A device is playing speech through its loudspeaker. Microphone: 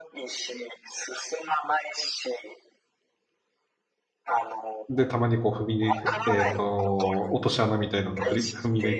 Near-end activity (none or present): present